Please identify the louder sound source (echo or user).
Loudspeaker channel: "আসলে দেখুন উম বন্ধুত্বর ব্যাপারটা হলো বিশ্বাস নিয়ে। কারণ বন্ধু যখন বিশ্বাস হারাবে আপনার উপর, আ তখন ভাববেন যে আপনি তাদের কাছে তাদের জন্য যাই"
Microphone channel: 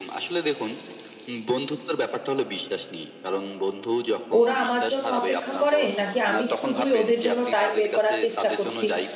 user